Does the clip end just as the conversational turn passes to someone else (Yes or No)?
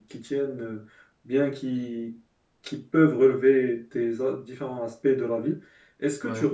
No